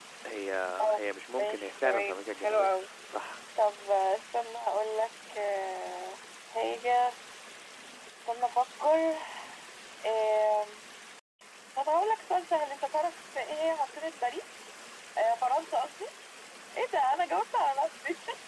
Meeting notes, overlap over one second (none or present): present